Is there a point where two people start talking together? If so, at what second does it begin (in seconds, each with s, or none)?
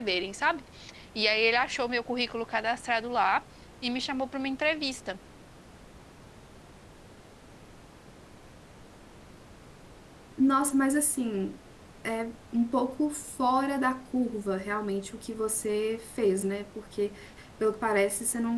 none